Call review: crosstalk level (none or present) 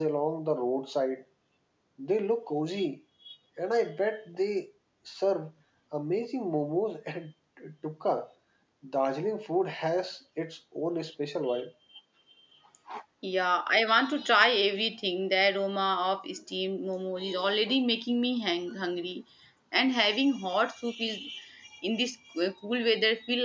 none